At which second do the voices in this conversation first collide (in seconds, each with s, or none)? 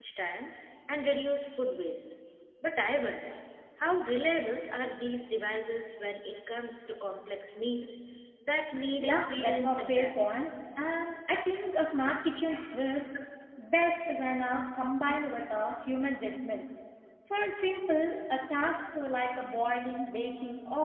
9.0 s